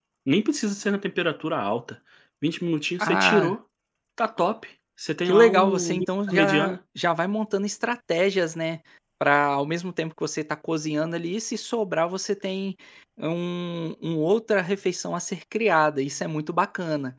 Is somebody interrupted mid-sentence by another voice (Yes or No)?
Yes